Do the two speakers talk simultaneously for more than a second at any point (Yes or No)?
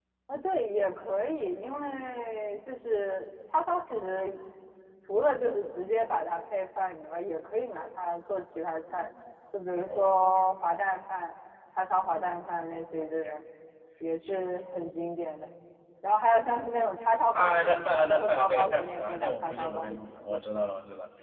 Yes